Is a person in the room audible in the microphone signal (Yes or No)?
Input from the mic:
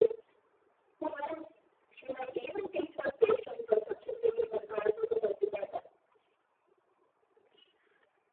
No